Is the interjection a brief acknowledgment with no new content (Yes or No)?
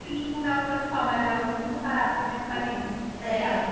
No